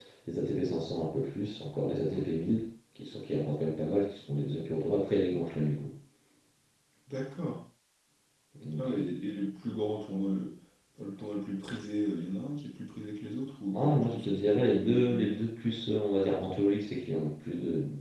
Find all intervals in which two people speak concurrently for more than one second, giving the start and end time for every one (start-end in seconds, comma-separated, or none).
13.7-15.3